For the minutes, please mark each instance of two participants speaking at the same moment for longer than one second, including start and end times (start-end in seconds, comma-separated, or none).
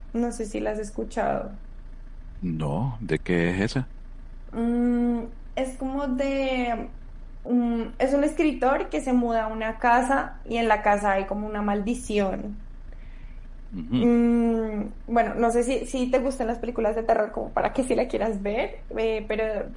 none